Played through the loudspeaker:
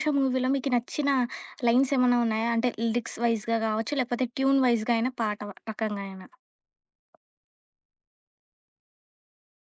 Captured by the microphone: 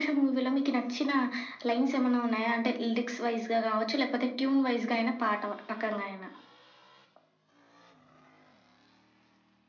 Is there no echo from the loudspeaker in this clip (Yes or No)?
No